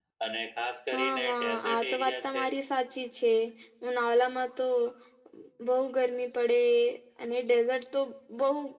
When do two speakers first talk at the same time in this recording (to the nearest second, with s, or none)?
1 s